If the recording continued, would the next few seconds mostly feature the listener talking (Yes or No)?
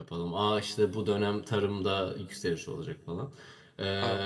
No